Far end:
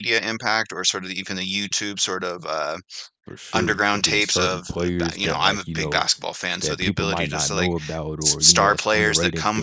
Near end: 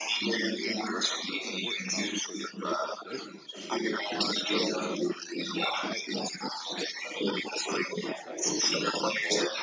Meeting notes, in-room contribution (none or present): present